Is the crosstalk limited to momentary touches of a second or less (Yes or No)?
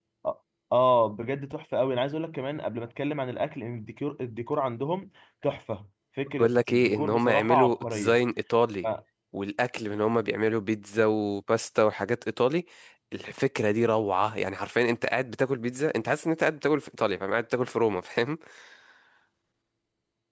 No